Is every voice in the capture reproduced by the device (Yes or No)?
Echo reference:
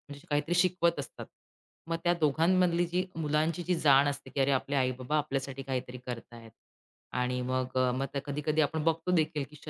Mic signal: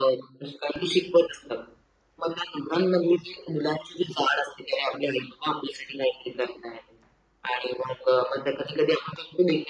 Yes